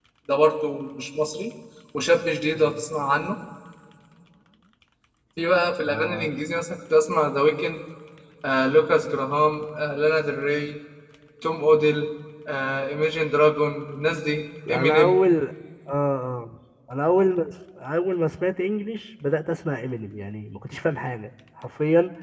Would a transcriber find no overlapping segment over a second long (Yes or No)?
Yes